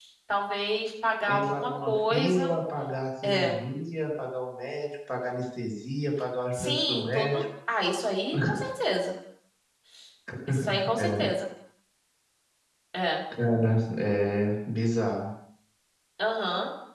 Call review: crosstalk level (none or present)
present